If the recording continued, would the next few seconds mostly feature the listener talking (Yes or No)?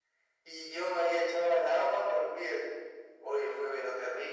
No